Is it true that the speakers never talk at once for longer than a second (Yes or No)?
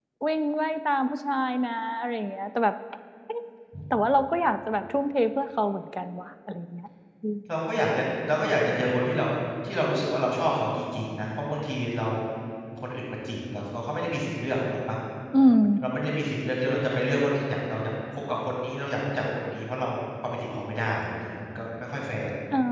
Yes